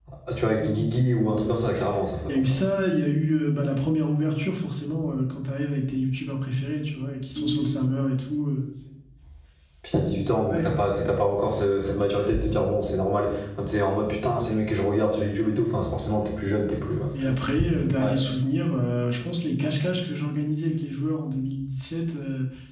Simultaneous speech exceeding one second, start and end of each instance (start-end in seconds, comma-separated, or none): none